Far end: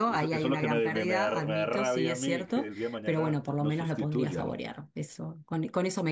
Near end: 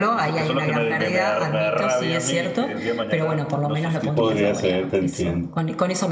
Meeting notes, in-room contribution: present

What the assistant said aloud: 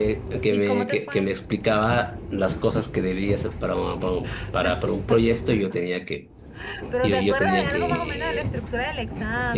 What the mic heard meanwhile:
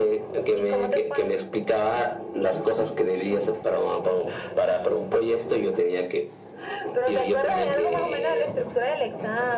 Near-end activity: none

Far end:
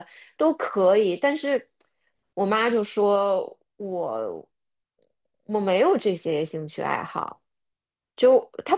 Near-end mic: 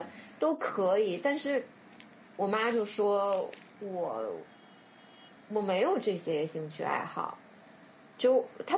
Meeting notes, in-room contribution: none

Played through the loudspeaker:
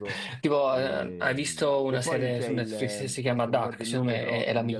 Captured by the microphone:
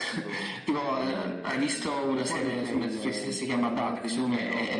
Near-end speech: none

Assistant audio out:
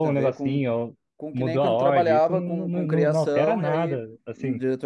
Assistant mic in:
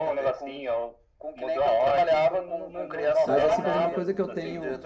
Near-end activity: present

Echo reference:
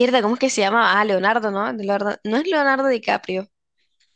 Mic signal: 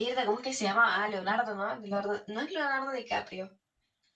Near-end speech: none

